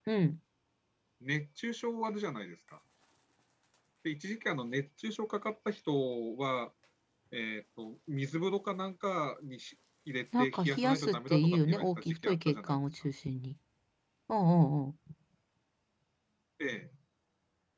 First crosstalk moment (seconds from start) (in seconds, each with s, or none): 10.3 s